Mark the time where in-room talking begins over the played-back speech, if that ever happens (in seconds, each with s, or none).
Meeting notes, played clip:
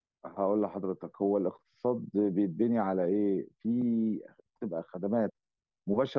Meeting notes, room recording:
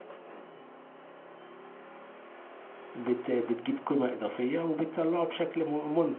3.0 s